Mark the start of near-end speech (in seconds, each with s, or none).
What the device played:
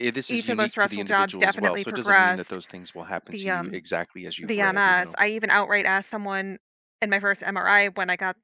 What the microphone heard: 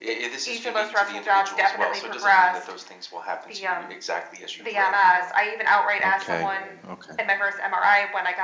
6.0 s